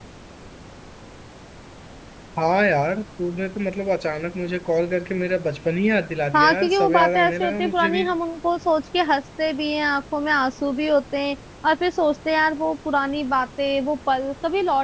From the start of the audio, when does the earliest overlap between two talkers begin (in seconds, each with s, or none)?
6.3 s